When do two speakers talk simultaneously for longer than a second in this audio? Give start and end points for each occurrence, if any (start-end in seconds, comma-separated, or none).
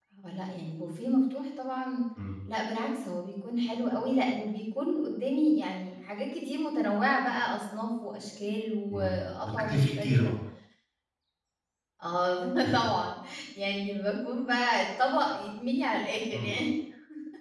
8.9-10.3